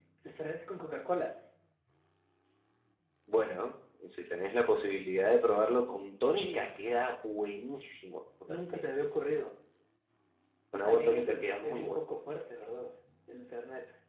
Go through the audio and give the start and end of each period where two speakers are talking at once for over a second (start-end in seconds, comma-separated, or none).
10.7-12.0